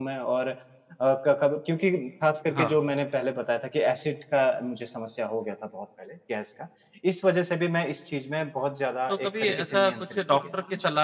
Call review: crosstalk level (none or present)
present